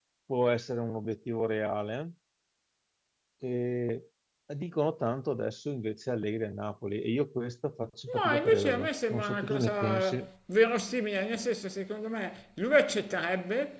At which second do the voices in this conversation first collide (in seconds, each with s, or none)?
8.1 s